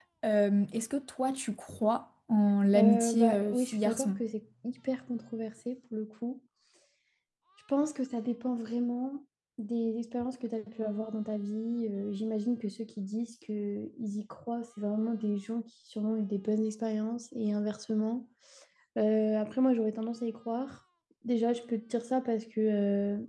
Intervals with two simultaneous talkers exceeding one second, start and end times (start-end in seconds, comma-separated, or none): 2.8-4.1